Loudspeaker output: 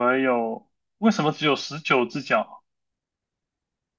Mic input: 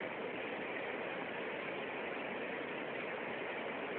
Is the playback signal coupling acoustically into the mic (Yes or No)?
No